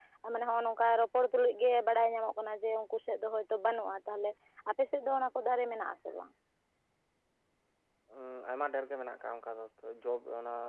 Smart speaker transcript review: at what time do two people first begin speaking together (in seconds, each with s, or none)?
none